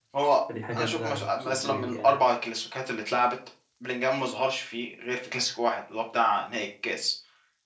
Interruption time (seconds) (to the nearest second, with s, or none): 1 s